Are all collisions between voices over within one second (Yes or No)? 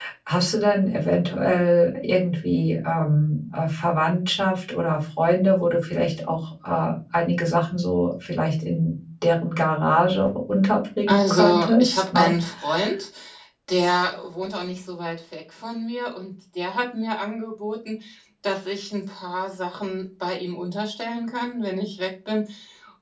No